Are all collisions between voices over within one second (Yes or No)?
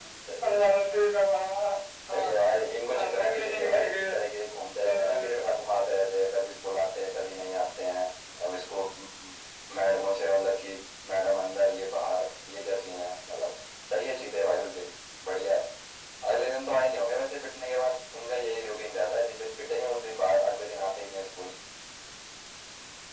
No